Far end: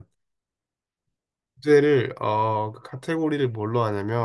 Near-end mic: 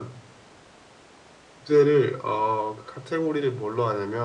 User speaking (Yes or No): No